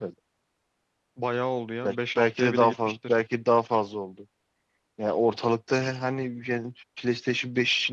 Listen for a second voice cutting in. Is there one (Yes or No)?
Yes